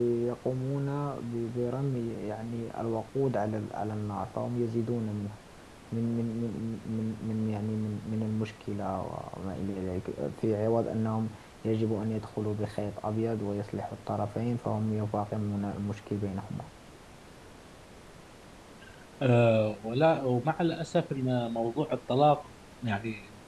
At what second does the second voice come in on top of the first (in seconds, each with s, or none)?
none